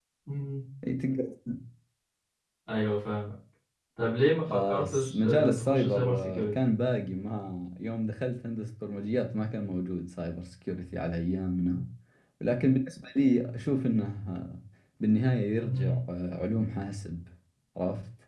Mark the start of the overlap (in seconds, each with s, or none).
4.5 s